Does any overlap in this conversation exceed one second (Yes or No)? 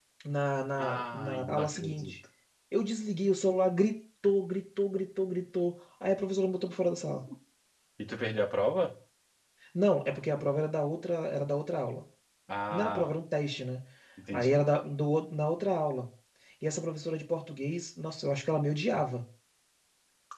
Yes